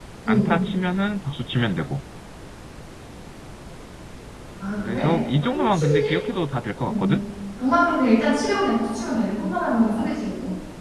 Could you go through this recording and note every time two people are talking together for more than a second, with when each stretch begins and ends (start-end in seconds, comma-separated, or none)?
4.8-6.1